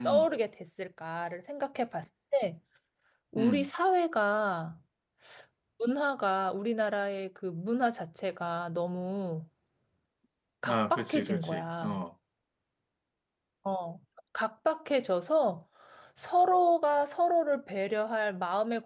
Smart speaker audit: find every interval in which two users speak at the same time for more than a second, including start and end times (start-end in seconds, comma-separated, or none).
10.7-12.0